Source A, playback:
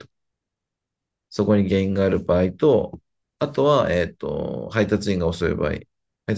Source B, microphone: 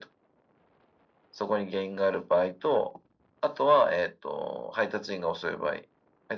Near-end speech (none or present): none